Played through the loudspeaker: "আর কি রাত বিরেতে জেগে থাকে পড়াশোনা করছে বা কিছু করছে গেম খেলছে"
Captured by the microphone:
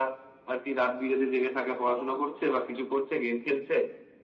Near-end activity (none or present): present